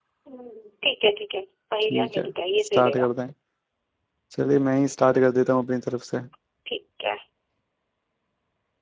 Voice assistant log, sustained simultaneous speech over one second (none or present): none